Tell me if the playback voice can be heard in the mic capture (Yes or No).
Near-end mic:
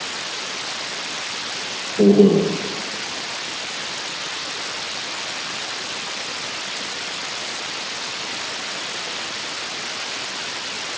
No